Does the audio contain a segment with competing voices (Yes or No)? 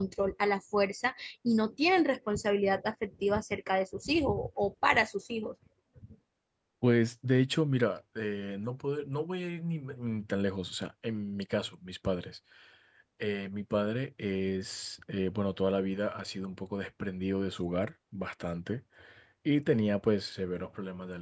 No